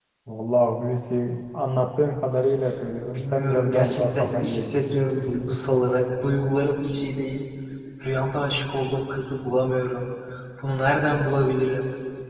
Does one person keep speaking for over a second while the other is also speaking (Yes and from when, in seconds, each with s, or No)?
Yes, from 3.1 s